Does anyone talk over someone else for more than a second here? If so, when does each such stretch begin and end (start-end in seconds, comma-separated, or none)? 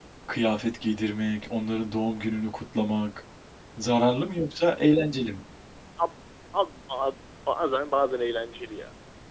none